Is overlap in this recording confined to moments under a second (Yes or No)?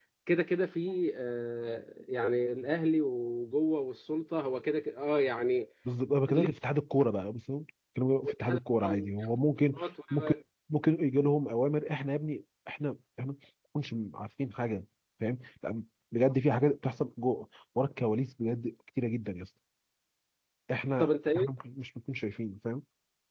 Yes